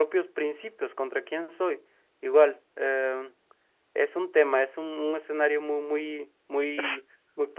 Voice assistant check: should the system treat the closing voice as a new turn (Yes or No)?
No